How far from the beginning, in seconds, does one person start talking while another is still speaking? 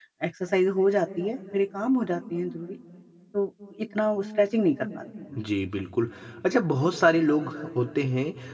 none

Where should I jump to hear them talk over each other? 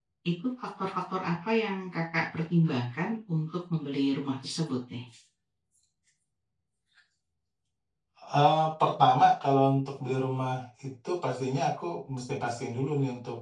none

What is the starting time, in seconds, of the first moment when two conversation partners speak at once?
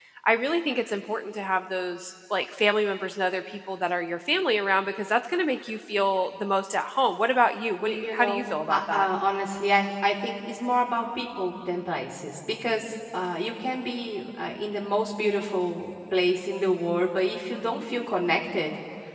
7.8 s

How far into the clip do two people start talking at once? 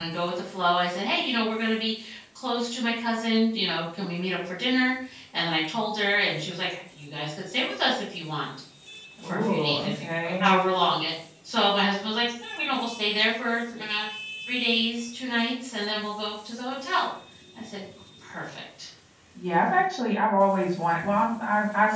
9.2 s

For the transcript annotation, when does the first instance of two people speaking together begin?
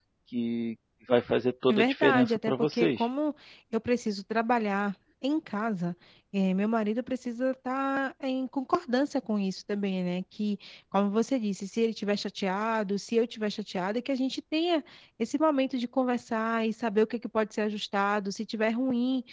1.7 s

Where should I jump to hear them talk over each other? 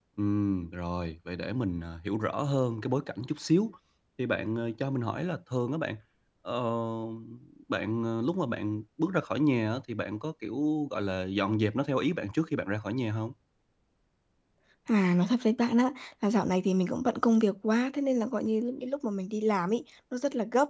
none

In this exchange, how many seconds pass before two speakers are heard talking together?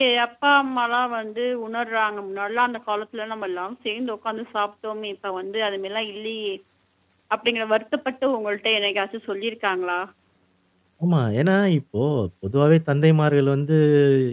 none

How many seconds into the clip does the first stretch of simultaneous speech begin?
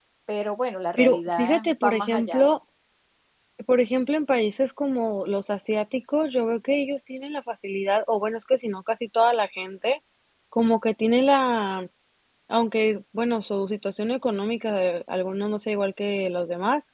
1.0 s

